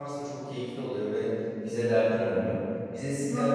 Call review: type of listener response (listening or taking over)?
listening